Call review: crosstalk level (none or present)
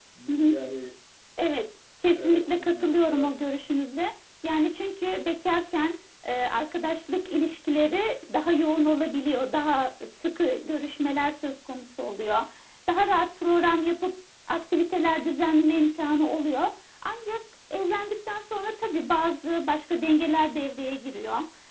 present